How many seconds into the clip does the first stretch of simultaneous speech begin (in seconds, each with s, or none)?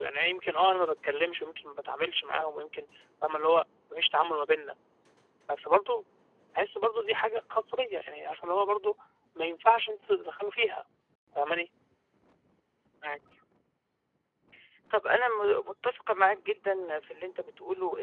none